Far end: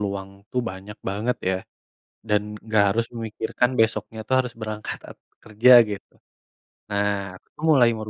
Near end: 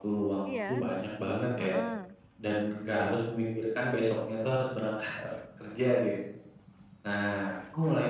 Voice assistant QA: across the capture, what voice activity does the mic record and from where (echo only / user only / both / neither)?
both